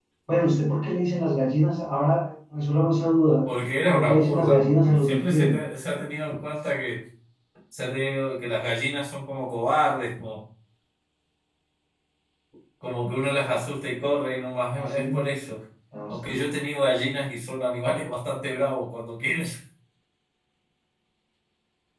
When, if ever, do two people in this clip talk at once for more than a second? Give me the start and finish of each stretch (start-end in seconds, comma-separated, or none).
3.9-5.6